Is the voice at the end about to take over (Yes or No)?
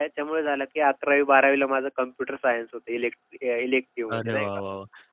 Yes